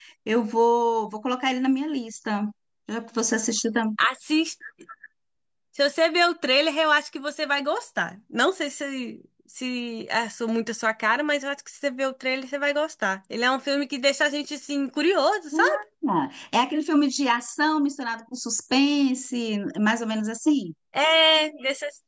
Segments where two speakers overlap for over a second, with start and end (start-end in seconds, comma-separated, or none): none